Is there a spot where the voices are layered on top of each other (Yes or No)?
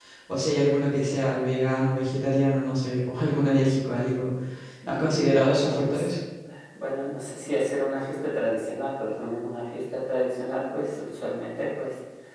Yes